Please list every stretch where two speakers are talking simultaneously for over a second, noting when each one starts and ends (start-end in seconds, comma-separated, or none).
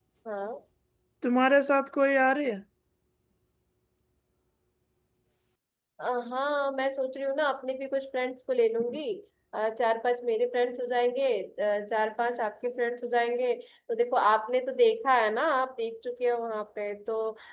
none